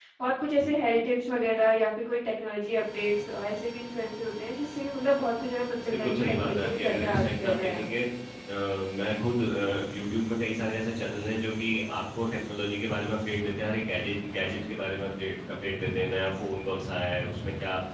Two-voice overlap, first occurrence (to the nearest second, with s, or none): 6 s